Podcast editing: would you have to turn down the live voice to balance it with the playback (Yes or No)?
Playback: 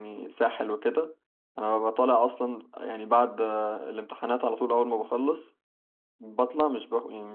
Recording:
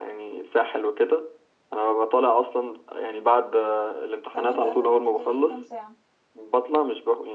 No